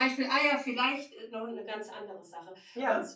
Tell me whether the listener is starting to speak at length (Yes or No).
No